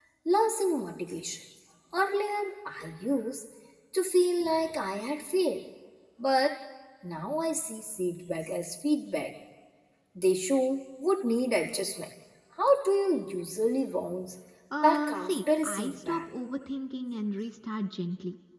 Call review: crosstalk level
present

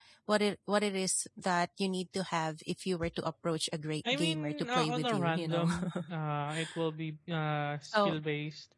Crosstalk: present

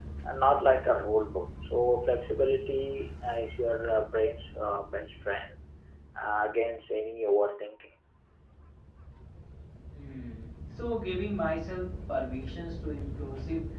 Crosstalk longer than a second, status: none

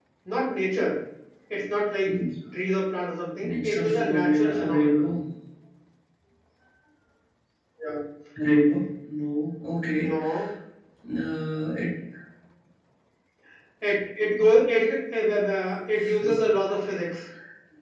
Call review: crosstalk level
present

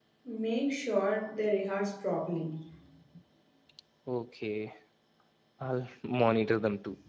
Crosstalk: none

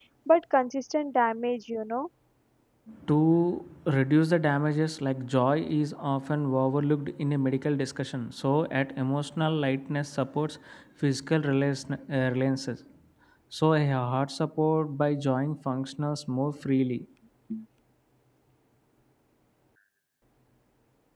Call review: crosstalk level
none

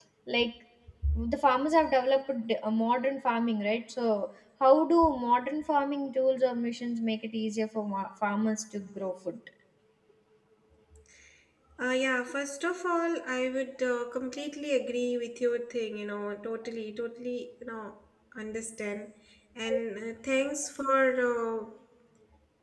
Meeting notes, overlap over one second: none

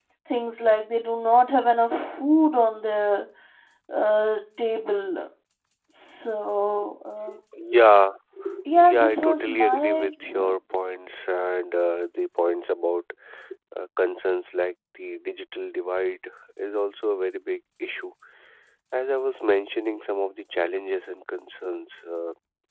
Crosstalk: present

